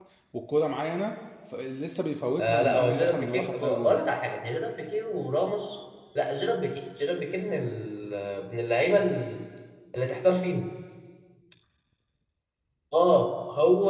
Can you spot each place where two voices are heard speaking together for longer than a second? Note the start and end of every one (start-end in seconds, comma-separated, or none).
2.4-3.9